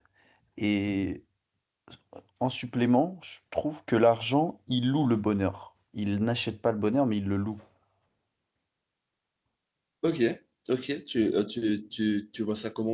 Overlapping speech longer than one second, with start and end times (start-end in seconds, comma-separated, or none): none